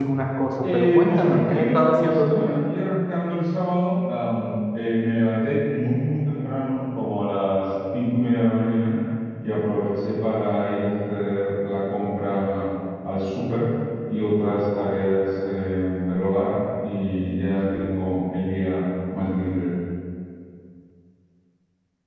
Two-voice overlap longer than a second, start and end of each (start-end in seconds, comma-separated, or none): 0.7-2.4